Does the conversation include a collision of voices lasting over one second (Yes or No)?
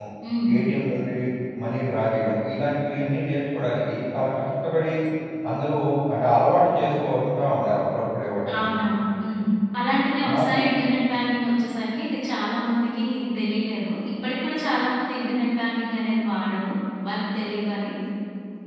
No